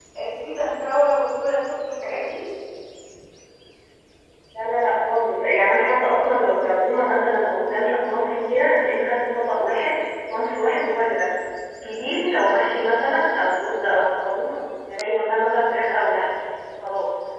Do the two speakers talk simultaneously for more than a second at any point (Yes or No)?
No